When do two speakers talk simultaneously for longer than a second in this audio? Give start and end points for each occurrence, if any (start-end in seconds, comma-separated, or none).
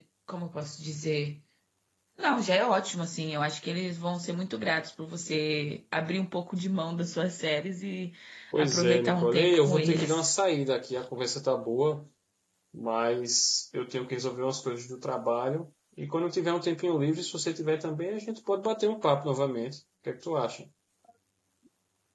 8.6-10.3